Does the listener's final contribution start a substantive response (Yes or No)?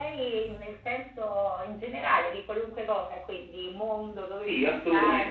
Yes